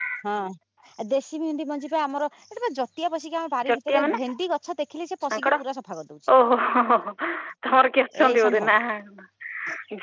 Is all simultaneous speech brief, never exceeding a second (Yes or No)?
Yes